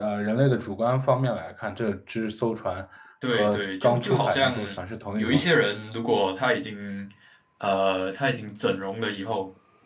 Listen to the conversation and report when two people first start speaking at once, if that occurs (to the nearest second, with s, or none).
3 s